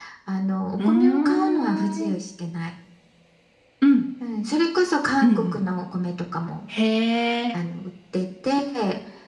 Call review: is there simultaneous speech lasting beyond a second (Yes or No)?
Yes